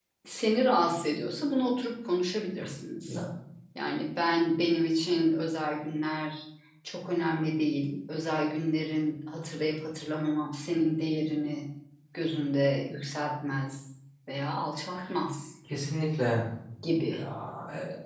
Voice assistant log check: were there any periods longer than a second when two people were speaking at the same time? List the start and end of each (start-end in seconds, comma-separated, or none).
none